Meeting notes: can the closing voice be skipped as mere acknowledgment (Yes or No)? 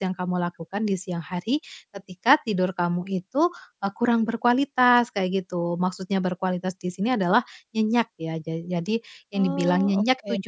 Yes